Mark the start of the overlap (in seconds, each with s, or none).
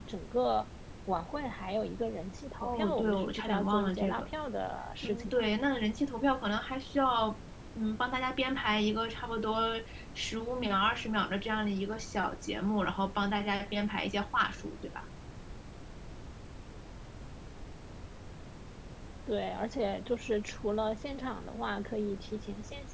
2.6 s